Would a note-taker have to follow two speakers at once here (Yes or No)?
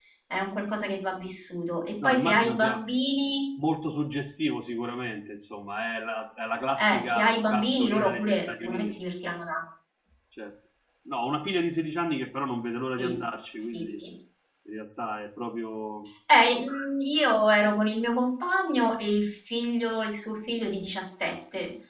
Yes